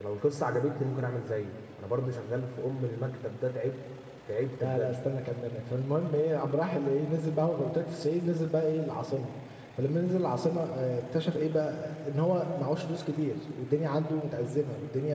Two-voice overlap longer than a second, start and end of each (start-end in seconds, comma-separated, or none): none